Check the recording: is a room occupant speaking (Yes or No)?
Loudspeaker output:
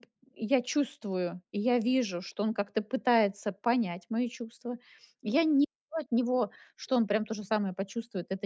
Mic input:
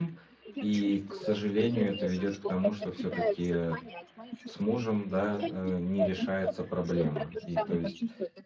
Yes